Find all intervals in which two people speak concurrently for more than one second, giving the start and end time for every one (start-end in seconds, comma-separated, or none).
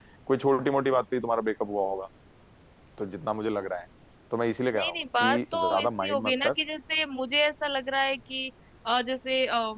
4.8-6.6